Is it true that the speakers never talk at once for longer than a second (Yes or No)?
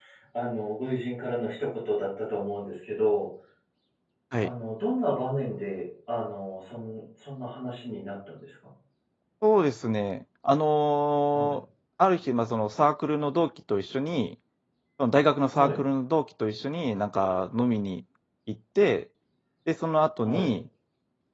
Yes